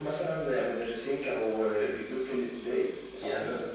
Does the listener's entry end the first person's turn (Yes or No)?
Yes